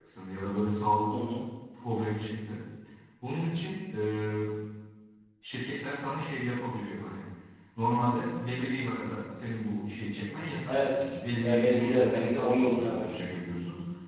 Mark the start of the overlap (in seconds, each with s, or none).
10.7 s